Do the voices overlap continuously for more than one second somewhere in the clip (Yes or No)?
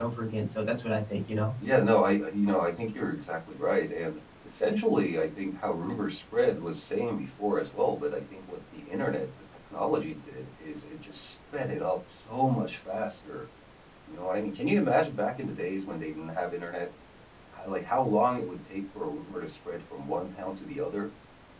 No